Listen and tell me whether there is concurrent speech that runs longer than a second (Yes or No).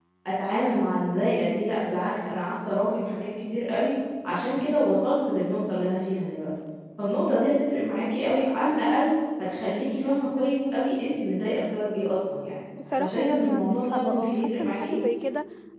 Yes